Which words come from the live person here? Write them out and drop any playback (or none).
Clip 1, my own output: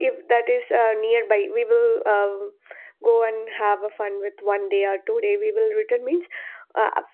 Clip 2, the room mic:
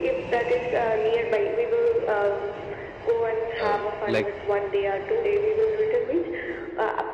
uh, like